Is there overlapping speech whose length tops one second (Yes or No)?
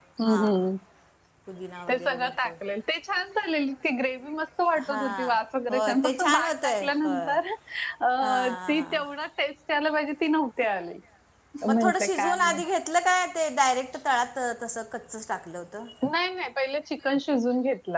Yes